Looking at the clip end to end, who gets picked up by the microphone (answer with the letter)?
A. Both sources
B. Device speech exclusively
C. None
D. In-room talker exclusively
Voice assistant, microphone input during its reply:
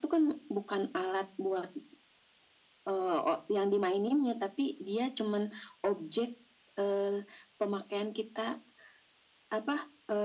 B